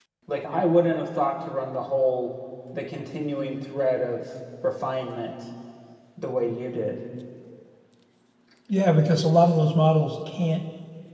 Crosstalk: none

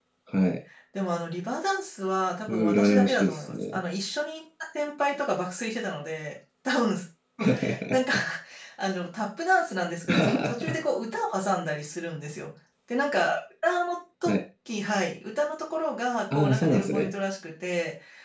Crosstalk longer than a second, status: present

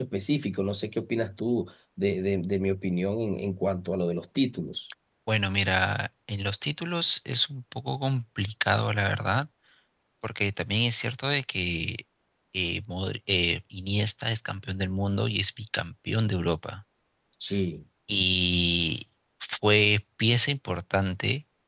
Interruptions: none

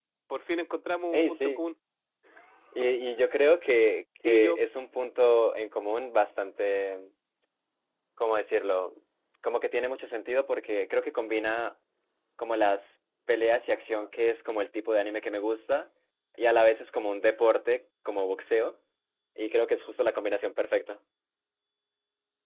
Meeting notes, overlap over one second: none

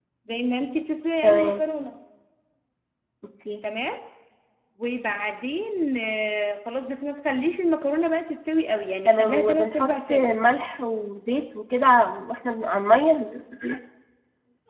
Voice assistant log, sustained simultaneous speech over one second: present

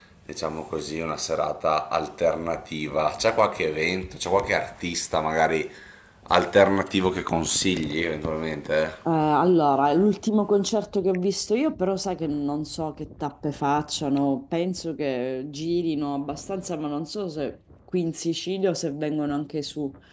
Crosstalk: none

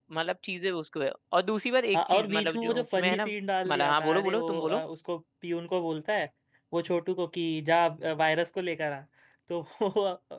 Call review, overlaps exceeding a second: present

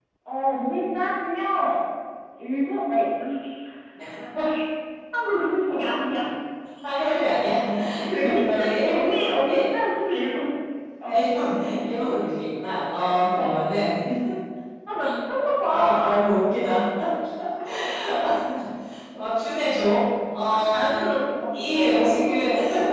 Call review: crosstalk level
present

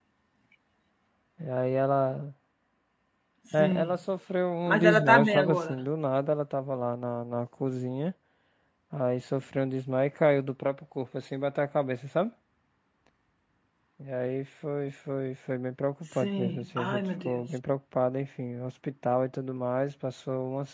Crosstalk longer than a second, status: present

